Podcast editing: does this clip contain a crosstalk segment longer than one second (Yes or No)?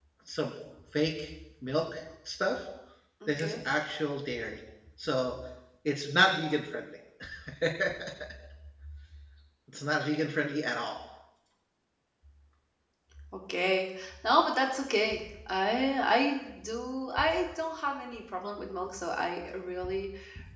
No